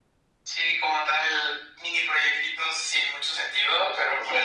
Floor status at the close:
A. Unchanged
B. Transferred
A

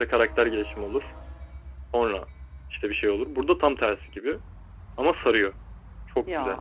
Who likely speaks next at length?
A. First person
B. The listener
B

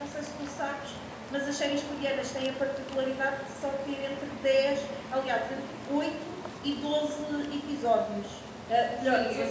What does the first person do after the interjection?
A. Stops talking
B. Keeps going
A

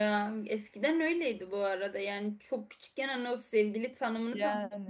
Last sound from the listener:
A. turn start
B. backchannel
B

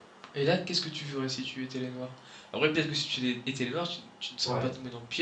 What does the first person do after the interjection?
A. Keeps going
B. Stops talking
B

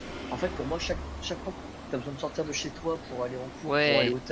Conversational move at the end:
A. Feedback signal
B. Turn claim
A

